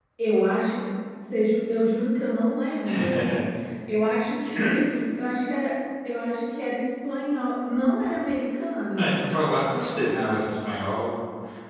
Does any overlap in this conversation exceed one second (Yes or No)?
No